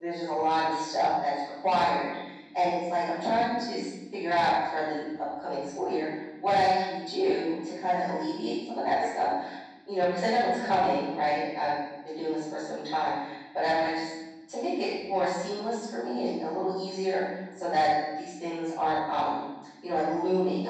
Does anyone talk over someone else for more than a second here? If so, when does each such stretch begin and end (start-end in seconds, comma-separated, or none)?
none